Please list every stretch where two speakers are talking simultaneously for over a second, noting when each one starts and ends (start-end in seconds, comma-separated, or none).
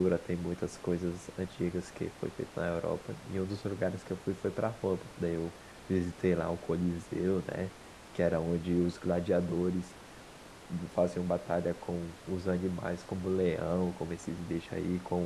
none